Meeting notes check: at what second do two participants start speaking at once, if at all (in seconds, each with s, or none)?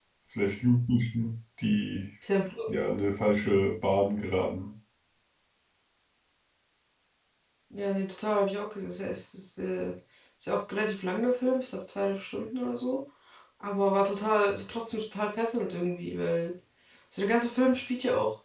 none